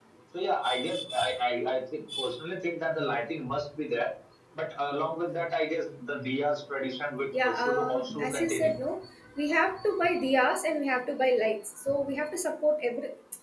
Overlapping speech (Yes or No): Yes